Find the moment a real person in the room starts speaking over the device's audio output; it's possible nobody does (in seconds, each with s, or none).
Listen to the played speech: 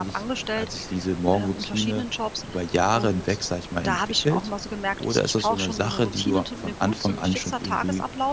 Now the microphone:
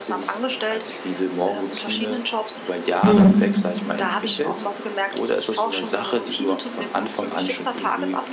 3.0 s